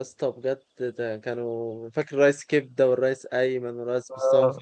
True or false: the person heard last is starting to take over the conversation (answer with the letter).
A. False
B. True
B